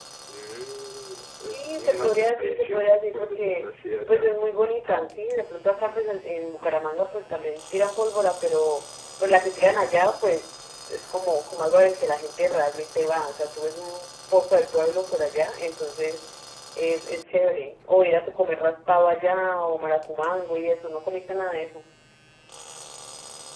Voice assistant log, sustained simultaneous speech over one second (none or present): present